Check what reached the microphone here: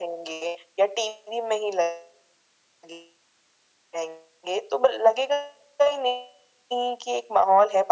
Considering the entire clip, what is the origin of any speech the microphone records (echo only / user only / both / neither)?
echo only